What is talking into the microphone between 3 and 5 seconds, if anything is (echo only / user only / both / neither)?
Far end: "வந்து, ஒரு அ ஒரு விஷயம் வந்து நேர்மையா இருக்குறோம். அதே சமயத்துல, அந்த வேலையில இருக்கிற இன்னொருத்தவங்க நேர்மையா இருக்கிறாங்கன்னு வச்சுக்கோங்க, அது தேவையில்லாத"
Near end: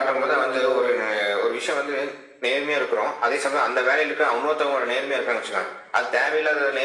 echo only